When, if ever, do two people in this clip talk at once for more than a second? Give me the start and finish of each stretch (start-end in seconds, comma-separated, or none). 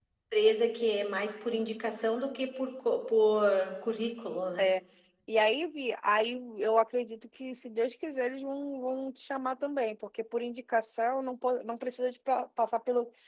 none